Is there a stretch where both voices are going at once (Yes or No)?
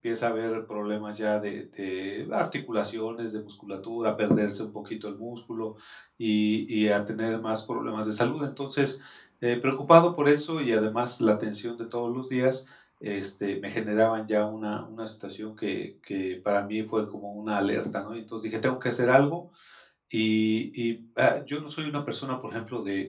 No